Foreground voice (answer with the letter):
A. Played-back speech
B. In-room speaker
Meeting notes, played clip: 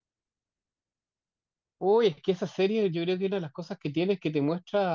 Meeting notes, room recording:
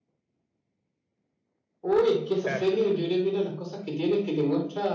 A